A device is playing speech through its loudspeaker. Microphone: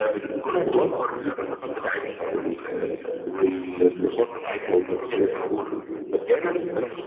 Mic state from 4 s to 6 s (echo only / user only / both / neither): echo only